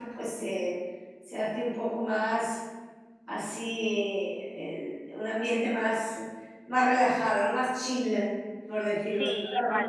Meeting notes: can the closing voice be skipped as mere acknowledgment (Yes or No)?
No